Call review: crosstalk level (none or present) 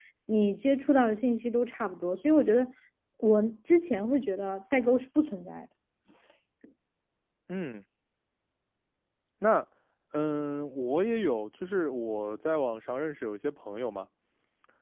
none